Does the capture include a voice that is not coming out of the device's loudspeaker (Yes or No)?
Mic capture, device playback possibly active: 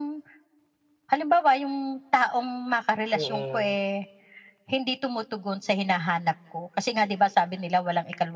Yes